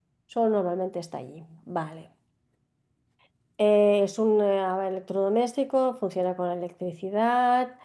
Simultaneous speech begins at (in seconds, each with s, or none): none